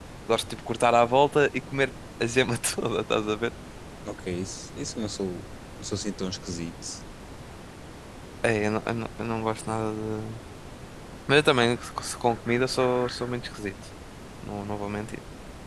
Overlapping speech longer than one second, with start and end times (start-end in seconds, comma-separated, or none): none